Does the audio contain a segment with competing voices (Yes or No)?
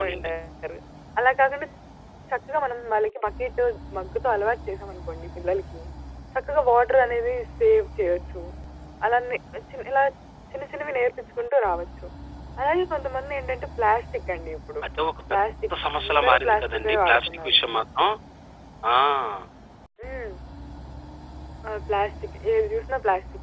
Yes